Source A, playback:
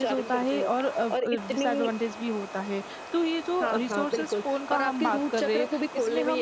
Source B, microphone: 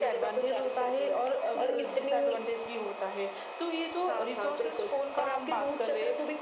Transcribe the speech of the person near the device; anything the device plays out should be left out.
पर

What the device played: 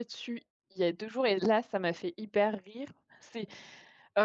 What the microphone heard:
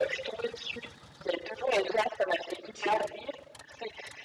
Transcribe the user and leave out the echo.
OK,

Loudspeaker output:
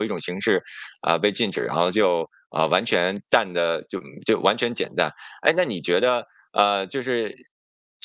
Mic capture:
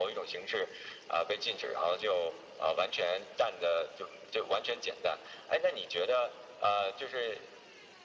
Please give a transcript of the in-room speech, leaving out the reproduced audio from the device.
none

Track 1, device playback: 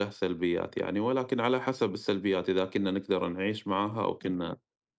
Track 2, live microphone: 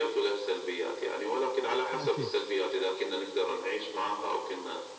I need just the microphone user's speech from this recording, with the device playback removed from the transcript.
أكيد،

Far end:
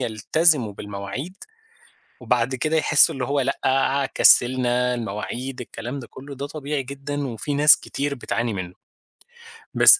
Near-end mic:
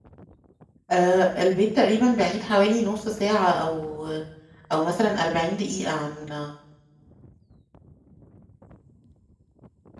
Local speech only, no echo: آآ البيت تقريبًا بعيد حوالي نُص ساعة أو أو مثلًا 40 دقيقة عن

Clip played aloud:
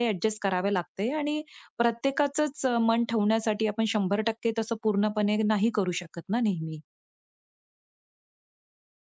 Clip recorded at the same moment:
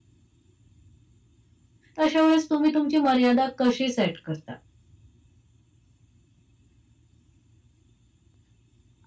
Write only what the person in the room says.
तर अशा वेळेस तुम्ही तुमची मर्यादा कशी सेट करता?

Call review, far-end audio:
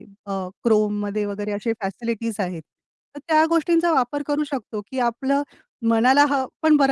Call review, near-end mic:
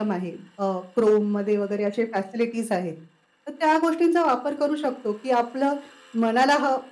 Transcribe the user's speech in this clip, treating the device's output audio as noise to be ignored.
none

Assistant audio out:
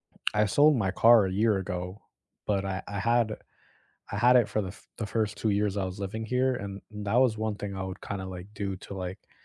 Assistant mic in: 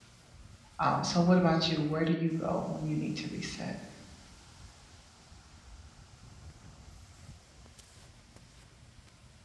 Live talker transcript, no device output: Um, so what about you? Where do you go when you need to reset?

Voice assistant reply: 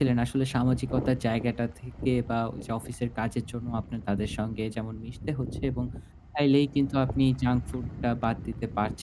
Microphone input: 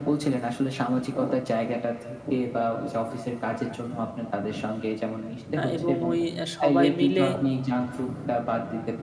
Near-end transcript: আ এবং ওই আ সবাই মিলে

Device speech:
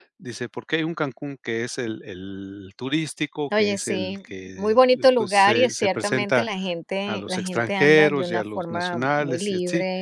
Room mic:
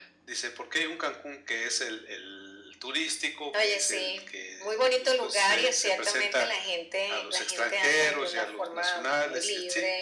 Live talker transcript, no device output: none

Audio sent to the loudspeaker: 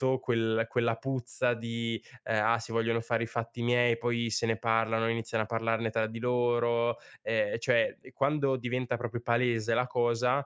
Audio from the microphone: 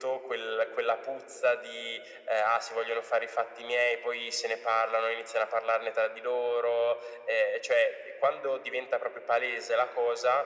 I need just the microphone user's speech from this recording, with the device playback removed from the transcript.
none

